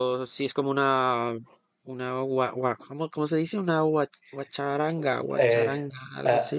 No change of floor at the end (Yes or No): No